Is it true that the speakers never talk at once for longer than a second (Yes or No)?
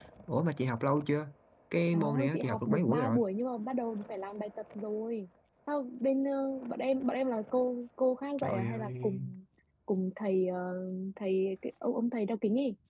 No